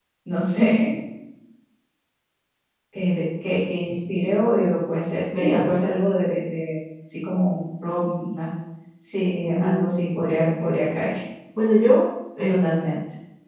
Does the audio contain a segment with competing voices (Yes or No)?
Yes